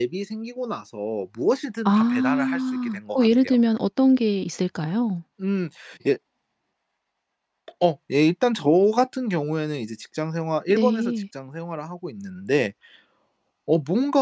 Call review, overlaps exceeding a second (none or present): present